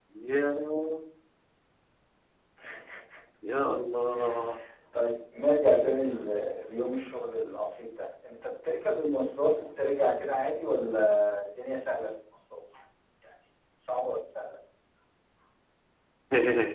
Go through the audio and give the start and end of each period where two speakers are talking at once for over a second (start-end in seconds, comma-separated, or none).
none